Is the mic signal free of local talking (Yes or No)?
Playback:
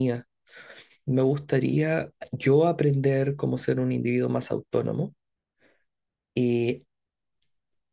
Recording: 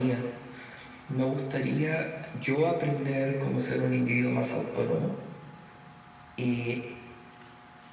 Yes